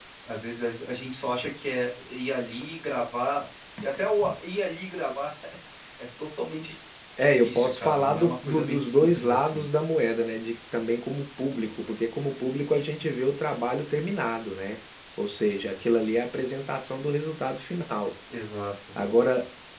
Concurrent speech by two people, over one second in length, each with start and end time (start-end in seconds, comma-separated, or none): 7.2-9.7